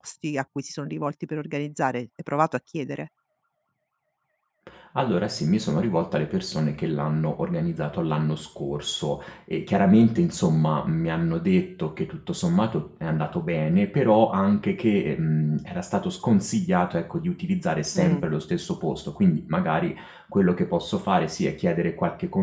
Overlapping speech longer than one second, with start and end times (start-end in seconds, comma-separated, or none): none